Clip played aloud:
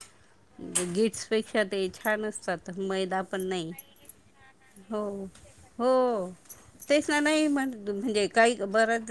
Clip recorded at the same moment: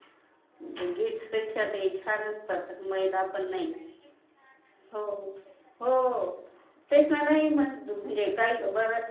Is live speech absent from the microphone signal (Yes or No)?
Yes